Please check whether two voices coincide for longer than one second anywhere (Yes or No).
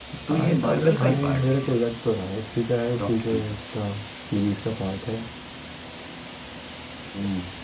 Yes